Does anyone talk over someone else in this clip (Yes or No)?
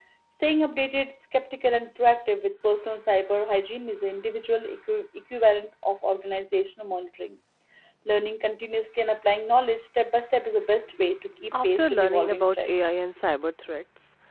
Yes